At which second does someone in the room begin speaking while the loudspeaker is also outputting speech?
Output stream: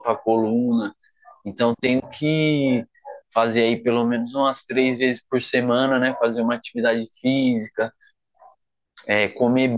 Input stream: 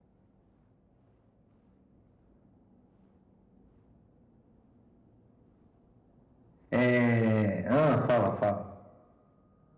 6.7 s

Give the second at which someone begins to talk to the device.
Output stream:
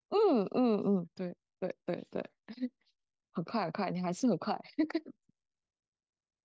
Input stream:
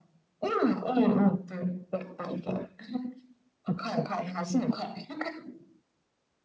none

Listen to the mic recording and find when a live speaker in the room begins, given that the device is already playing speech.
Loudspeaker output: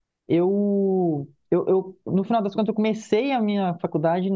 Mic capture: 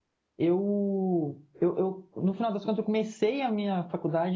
none

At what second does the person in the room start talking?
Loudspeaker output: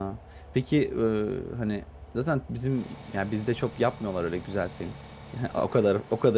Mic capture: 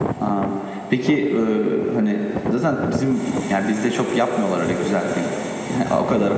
none

